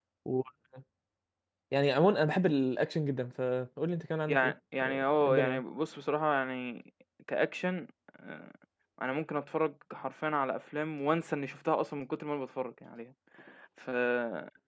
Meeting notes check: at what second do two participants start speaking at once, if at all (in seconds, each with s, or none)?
4.3 s